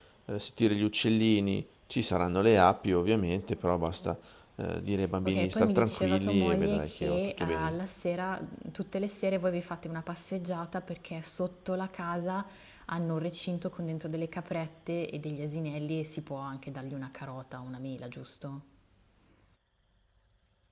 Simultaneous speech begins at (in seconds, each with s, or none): 5.2 s